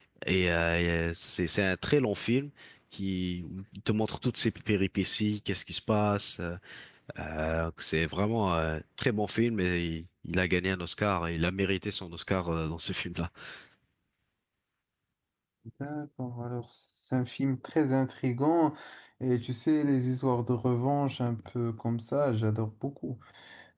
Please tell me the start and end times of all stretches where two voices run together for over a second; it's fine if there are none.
none

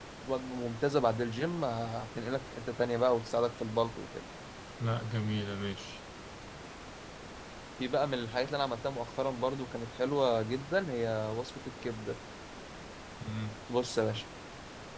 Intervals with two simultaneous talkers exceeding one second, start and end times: none

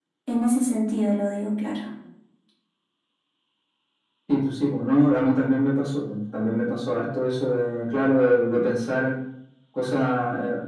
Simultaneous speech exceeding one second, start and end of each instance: none

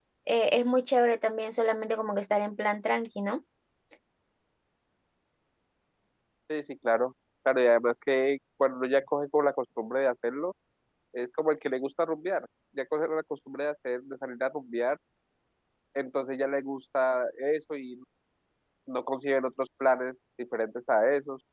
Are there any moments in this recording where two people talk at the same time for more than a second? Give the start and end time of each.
none

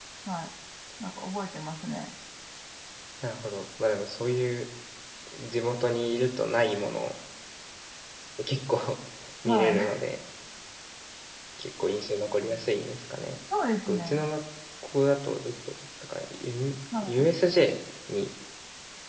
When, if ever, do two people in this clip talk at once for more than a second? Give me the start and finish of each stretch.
none

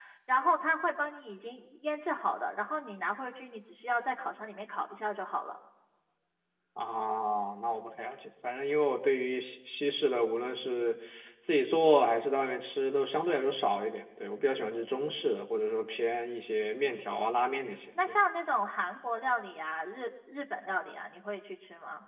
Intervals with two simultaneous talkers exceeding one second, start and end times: none

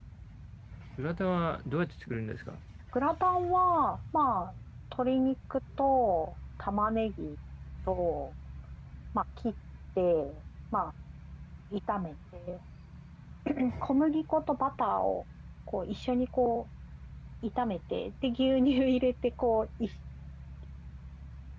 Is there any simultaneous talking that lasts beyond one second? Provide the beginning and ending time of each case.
none

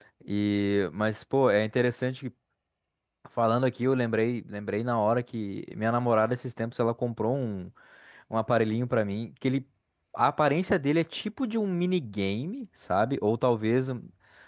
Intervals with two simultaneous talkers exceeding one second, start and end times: none

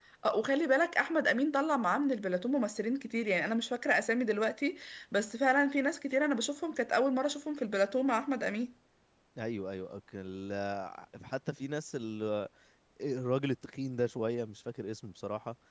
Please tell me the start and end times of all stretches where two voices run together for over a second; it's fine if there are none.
none

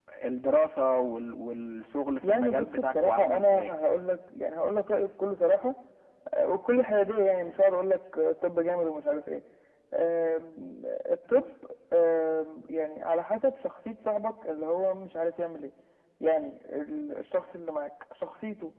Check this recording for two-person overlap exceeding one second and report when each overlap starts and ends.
2.2-3.8

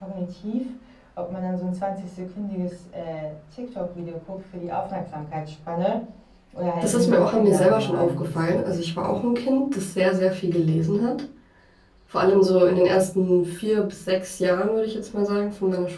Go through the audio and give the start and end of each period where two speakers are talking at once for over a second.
6.8-8.4

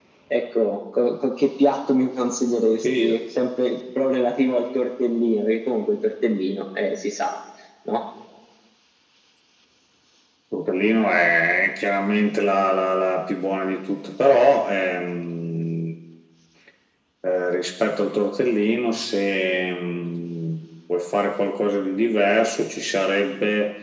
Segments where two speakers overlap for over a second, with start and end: none

